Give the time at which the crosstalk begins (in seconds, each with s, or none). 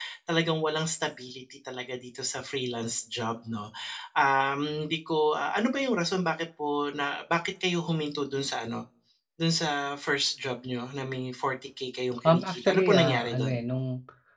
12.2 s